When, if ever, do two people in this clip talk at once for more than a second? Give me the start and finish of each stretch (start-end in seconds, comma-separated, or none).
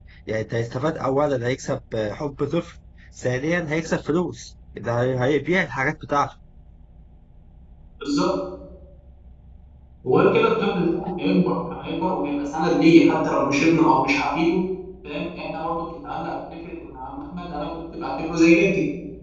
none